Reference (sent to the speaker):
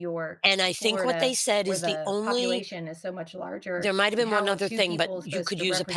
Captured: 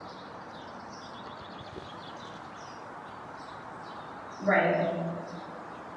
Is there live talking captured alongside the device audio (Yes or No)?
Yes